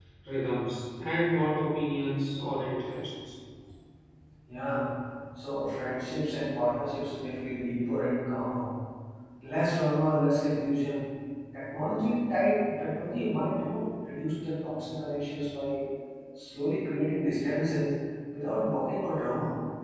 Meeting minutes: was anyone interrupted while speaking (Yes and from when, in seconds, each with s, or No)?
No